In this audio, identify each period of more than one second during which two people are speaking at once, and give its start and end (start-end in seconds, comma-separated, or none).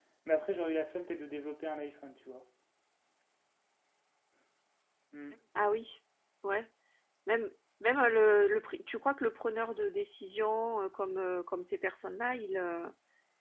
none